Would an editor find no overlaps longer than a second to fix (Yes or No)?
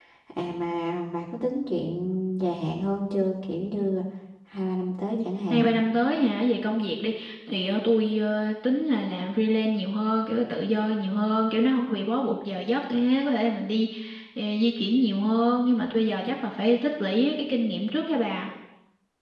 Yes